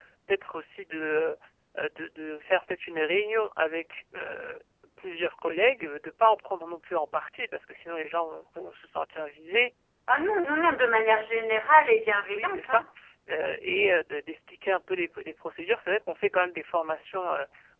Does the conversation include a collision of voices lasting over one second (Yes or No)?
No